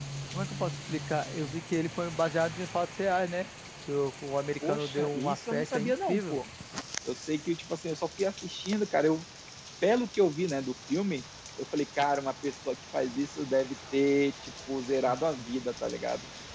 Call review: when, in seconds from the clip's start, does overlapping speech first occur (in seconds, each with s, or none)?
4.6 s